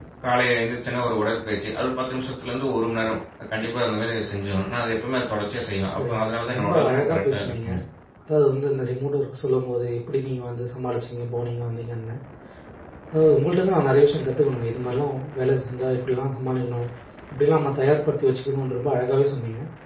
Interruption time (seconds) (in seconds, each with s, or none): 6.0 s